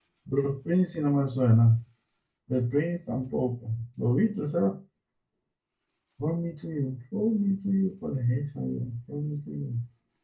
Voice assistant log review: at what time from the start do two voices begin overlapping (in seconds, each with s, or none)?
none